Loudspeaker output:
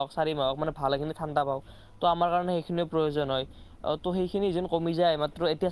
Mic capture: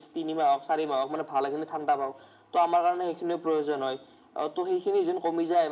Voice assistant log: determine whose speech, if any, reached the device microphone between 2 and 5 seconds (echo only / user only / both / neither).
echo only